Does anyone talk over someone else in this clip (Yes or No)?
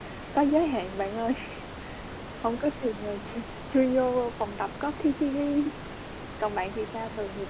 No